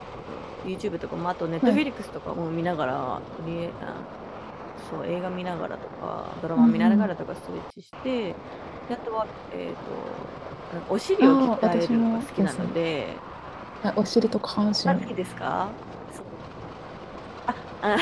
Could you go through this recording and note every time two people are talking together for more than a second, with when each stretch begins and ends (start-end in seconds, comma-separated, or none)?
11.2-12.6